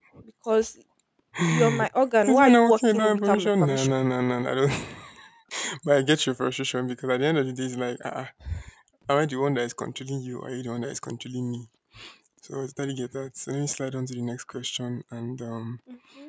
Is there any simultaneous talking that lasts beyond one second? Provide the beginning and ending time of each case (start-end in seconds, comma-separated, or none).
2.3-3.9